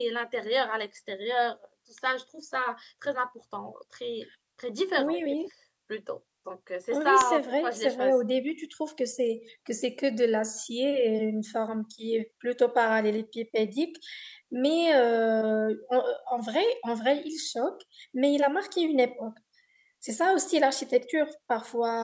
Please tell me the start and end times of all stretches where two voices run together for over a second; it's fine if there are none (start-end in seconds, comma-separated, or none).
6.9-8.1